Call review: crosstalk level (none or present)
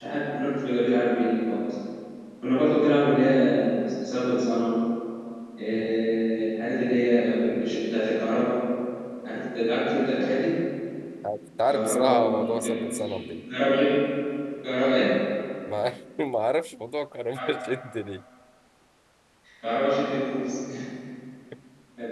present